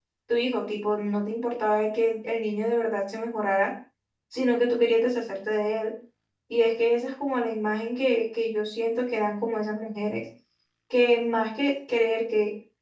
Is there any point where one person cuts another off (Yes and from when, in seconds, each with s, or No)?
No